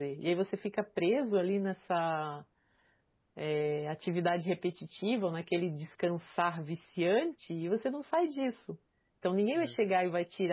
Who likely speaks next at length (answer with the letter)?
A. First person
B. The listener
A